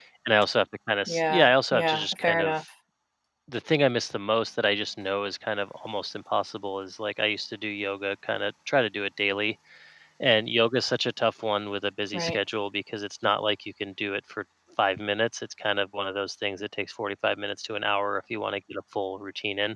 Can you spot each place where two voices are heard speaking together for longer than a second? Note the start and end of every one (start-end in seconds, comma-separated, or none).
1.1-2.5